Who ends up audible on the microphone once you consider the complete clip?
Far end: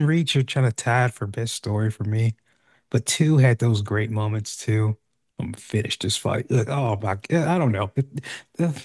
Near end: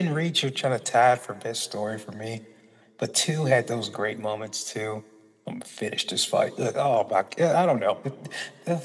echo only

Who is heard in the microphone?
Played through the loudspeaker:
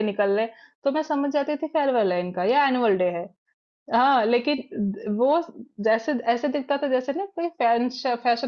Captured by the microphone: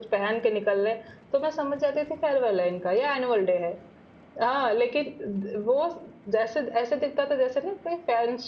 echo only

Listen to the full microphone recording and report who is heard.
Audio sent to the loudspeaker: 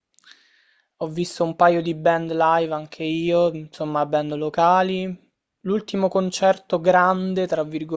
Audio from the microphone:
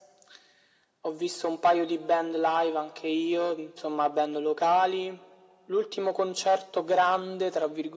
echo only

